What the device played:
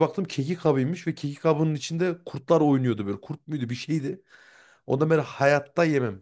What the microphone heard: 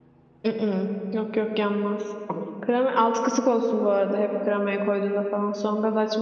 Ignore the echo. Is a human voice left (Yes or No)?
Yes